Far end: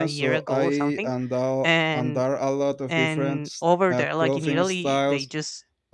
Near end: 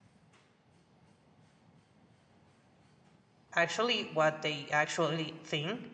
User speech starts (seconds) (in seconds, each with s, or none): 3.5 s